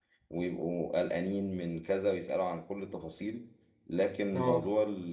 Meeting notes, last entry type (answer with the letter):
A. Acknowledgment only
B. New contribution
A